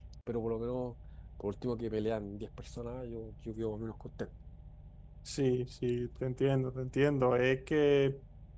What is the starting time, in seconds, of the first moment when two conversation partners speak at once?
none

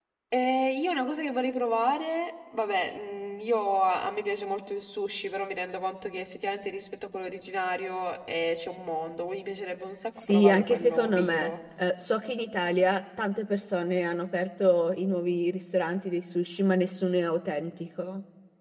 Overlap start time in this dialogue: 10 s

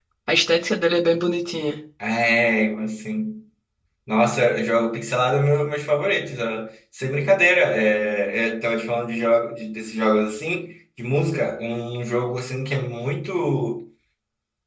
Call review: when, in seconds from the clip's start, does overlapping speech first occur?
none

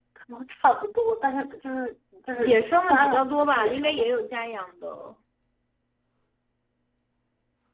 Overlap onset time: 2 s

